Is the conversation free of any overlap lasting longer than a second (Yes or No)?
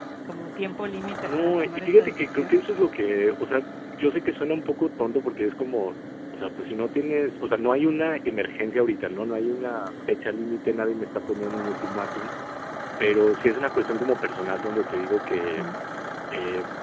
No